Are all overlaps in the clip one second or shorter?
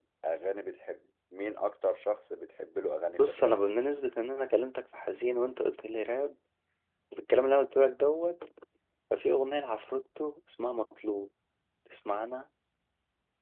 Yes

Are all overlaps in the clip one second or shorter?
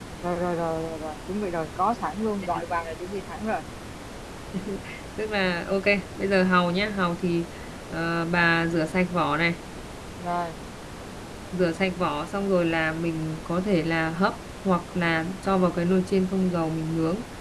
Yes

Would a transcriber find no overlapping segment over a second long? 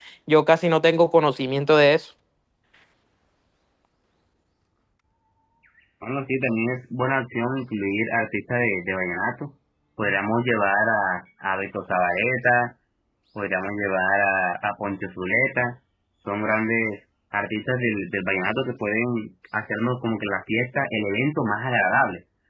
Yes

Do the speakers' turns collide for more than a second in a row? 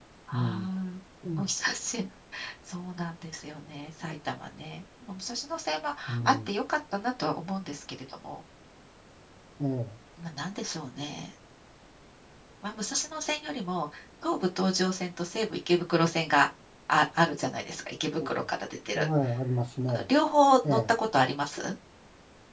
No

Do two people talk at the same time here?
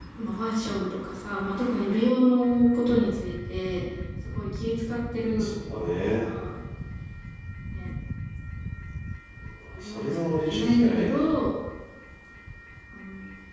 Yes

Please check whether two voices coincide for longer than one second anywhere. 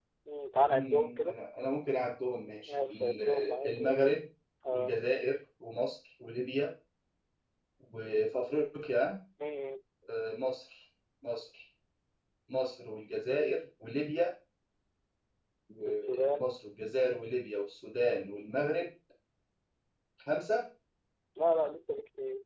Yes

